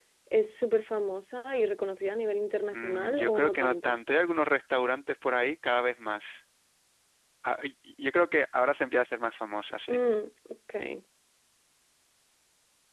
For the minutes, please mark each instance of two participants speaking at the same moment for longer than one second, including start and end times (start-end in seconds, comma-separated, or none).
2.7-4.0